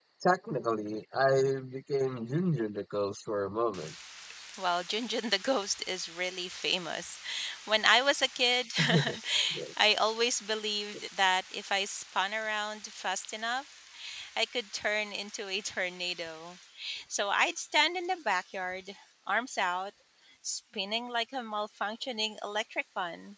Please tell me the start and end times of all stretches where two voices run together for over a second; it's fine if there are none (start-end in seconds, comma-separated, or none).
none